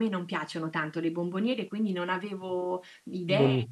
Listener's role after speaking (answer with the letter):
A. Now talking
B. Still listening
B